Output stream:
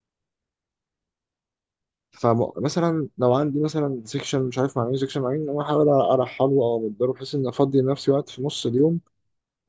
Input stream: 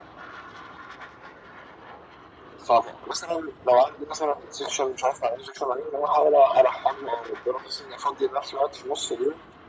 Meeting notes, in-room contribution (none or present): none